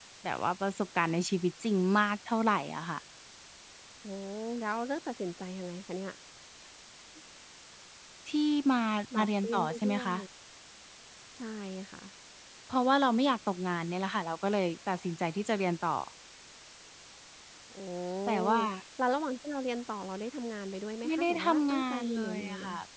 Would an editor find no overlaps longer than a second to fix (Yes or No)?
No